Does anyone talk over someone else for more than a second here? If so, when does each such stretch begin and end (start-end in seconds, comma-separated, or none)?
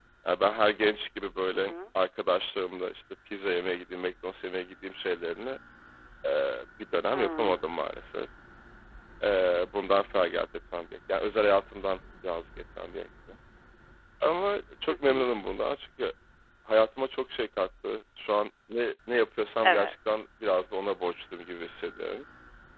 none